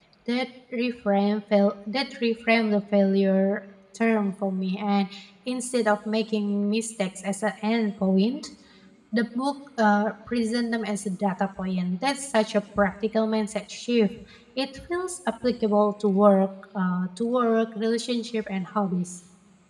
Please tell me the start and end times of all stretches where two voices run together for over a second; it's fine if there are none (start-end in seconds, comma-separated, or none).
none